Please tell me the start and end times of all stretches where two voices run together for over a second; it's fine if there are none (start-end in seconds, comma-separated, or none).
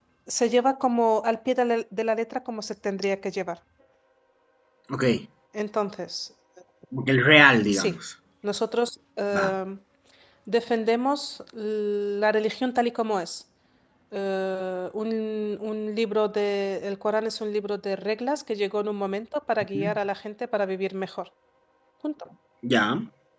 none